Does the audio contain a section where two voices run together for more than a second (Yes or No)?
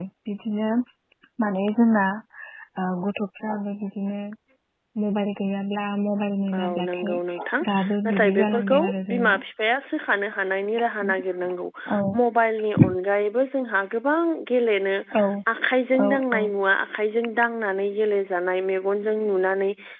Yes